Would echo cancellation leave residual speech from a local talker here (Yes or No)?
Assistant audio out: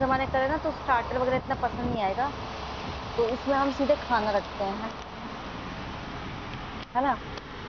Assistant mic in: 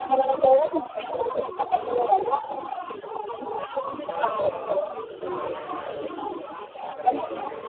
Yes